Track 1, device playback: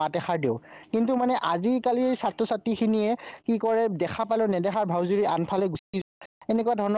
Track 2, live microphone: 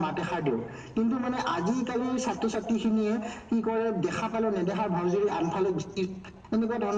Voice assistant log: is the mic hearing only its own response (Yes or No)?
Yes